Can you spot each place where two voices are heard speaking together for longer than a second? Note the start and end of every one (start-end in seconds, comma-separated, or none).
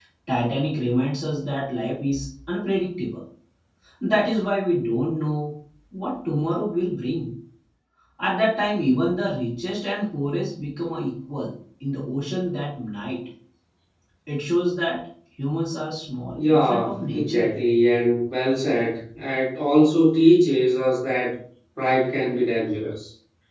16.3-17.6